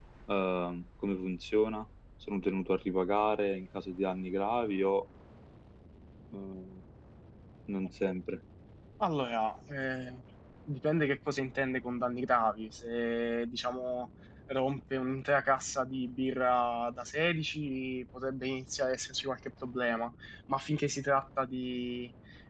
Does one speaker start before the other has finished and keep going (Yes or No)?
No